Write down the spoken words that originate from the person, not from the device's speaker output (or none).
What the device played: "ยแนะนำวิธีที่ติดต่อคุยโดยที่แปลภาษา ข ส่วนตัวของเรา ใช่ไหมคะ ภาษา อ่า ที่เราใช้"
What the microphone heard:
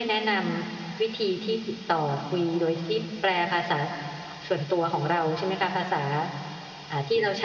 none